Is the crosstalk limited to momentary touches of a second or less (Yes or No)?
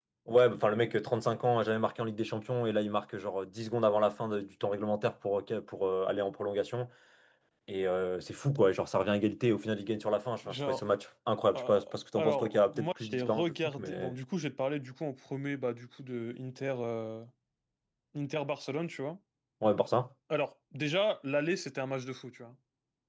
No